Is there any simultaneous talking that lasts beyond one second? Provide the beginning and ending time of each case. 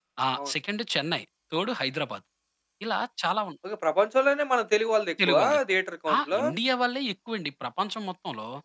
none

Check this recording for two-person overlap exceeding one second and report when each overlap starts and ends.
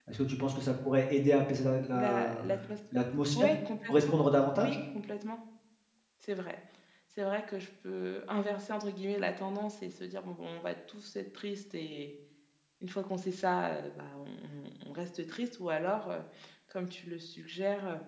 none

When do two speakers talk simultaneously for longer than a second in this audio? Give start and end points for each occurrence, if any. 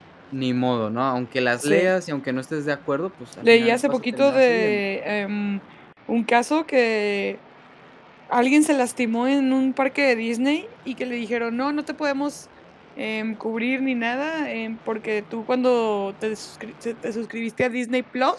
3.4-4.8

